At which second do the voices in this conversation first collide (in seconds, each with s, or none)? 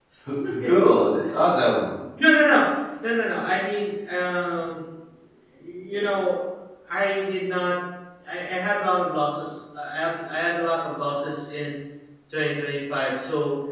none